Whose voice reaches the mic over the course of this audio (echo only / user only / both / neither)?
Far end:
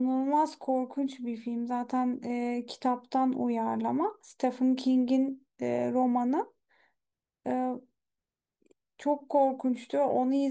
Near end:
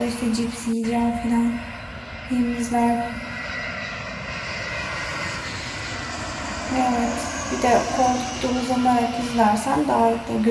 user only